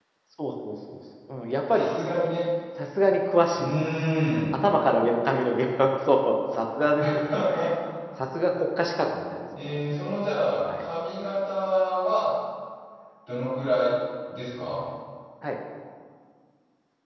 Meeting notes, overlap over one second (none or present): none